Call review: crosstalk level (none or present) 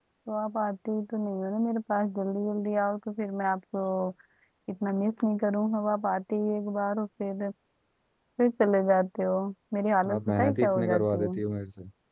present